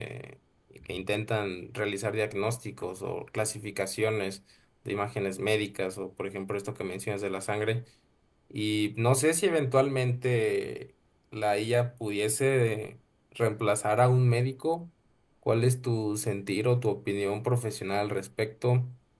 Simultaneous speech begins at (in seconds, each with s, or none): none